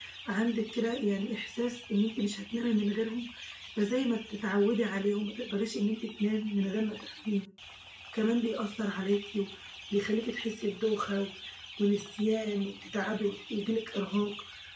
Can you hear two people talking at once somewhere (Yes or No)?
No